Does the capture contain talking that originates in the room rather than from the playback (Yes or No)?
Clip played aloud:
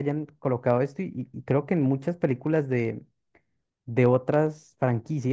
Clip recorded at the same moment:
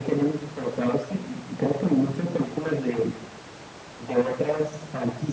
No